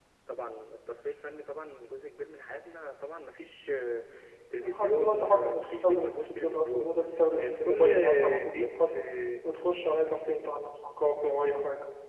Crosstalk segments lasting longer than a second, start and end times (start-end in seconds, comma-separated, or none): 4.6-6.9, 7.3-9.0